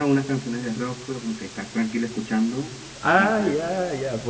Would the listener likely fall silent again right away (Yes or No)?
No